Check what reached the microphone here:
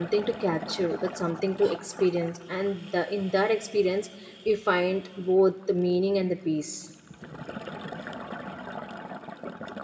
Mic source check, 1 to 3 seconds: user only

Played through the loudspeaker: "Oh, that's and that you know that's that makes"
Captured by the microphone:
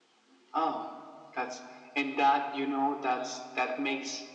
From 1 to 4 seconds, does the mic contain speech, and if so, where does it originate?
echo only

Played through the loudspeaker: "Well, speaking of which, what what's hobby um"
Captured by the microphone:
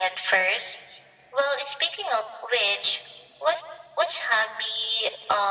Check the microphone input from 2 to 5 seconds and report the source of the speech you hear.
echo only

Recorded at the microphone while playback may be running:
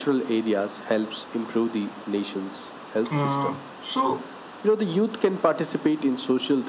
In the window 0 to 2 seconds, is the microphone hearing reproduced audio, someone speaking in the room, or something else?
echo only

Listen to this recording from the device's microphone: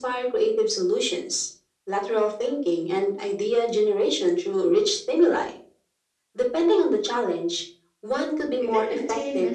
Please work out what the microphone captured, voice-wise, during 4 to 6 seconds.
echo only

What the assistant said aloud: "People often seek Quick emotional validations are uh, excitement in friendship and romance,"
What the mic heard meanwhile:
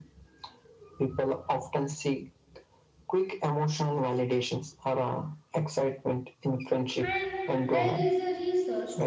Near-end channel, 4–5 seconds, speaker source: echo only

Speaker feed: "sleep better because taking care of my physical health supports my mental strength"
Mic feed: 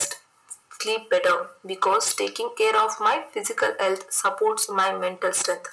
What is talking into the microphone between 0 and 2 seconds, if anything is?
echo only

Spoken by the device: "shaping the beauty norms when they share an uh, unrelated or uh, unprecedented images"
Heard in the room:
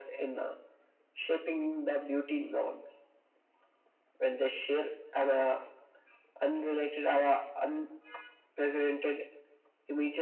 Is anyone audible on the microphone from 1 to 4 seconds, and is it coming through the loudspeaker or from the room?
echo only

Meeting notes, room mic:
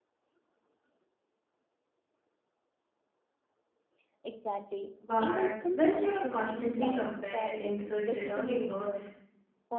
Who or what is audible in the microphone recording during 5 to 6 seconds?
both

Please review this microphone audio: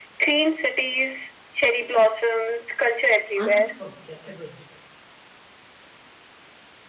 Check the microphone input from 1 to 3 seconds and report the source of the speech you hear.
echo only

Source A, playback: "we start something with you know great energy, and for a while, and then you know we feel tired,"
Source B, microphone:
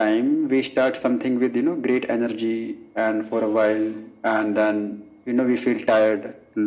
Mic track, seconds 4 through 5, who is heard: echo only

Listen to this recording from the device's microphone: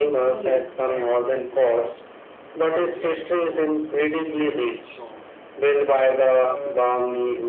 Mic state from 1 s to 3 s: both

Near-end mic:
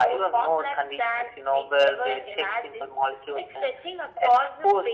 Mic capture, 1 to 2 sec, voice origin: echo only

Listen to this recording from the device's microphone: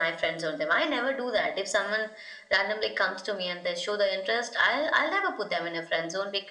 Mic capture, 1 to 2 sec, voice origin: echo only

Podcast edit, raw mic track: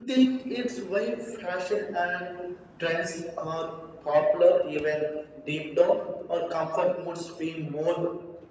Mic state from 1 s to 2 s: echo only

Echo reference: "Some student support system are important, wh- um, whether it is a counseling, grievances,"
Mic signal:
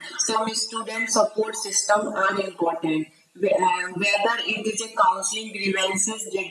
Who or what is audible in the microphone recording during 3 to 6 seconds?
echo only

